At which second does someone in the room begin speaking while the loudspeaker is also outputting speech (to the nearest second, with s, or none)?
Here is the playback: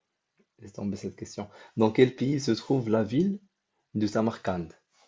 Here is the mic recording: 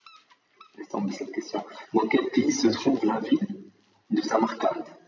2 s